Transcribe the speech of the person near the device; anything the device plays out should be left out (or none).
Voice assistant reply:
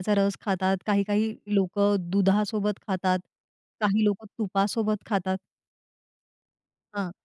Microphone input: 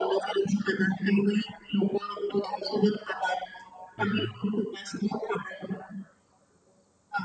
हं, हं.